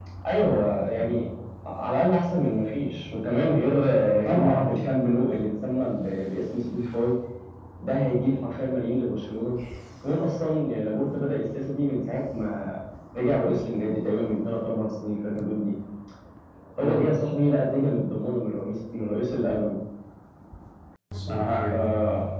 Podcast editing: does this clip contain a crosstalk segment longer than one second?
No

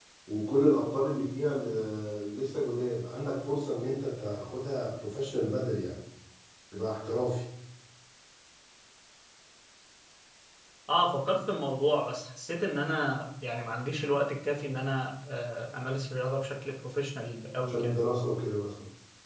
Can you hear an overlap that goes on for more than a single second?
No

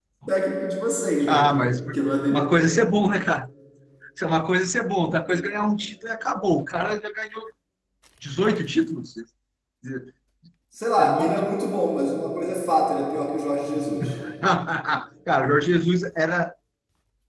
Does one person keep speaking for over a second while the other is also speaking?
No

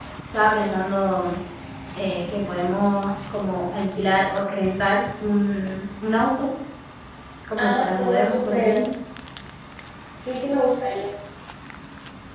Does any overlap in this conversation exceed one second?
Yes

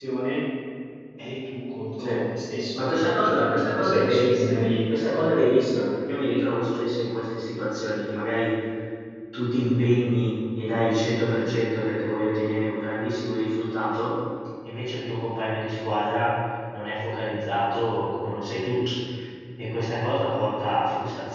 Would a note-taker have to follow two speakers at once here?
Yes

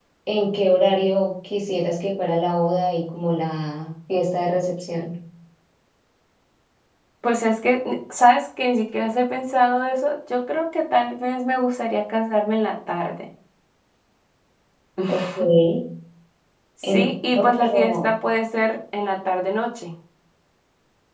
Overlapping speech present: Yes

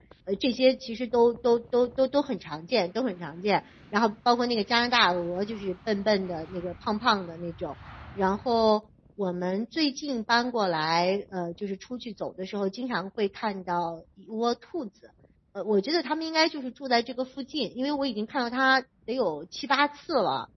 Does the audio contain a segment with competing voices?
No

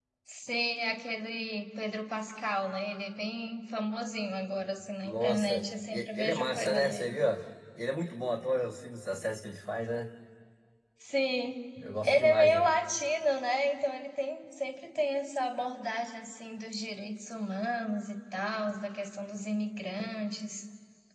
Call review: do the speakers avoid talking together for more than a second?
No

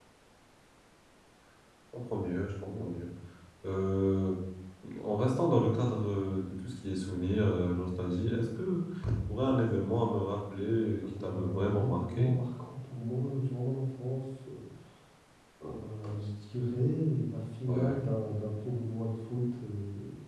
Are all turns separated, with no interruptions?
No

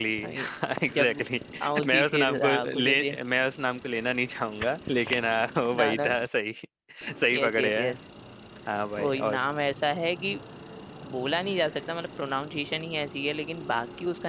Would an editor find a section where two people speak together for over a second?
Yes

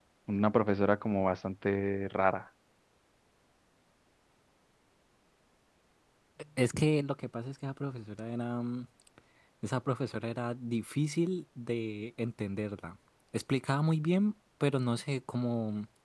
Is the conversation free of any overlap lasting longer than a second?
Yes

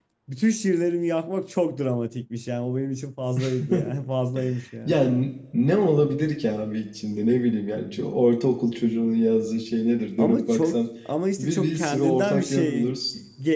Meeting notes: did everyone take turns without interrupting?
No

